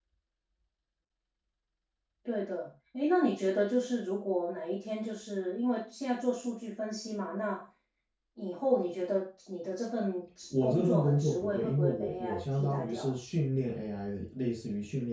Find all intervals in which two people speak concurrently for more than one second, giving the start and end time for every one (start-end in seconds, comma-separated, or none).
10.6-13.1